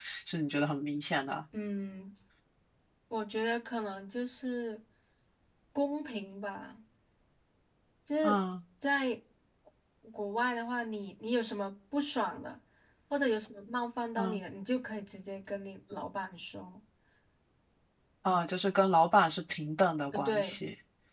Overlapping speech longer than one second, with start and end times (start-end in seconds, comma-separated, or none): none